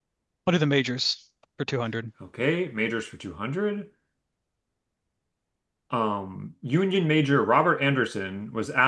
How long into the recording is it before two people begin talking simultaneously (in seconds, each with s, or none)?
none